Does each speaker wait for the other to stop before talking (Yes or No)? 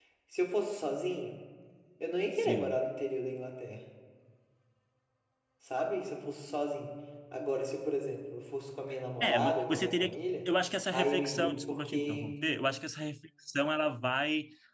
No